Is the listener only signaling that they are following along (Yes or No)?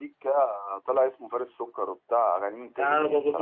No